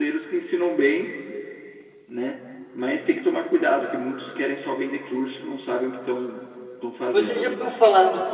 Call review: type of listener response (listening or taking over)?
taking over